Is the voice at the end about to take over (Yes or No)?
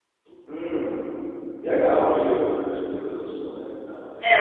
Yes